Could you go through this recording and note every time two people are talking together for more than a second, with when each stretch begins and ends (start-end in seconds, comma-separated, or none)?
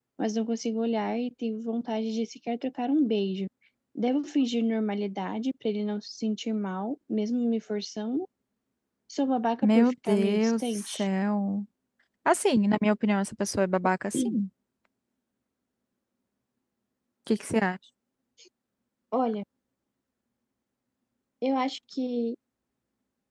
9.6-11.1